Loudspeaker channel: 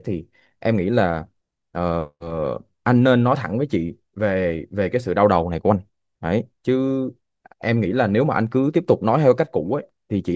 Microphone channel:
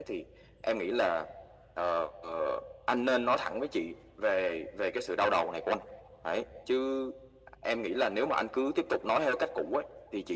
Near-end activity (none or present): none